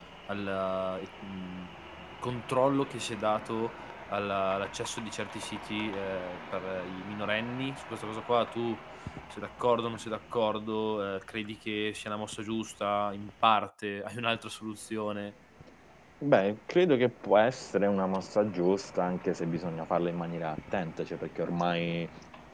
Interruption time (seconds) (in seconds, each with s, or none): none